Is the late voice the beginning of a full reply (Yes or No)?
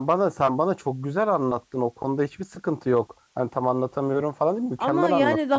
Yes